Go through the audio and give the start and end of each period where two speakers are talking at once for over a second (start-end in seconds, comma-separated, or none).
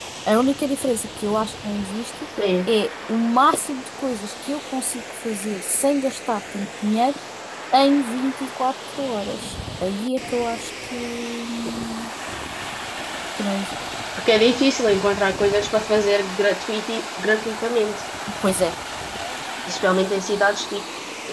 none